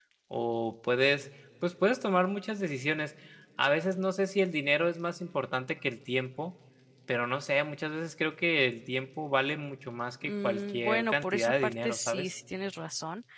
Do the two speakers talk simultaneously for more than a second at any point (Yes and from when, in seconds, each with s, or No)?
Yes, from 10.2 s